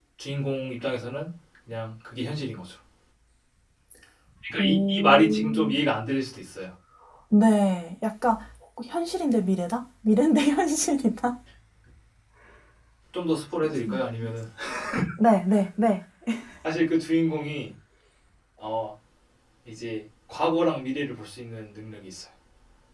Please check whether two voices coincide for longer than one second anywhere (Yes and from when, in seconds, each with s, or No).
Yes, from 4.5 s